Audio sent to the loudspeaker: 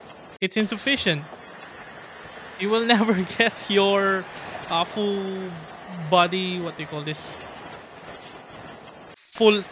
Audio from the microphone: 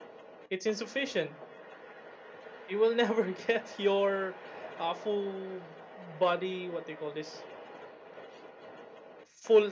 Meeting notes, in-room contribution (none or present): none